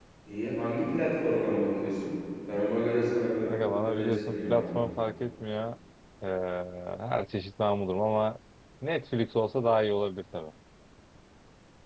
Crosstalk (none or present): present